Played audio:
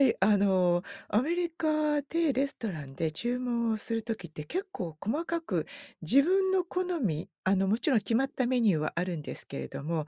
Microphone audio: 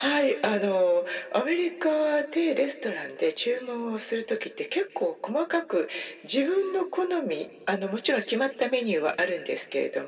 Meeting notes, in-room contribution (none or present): none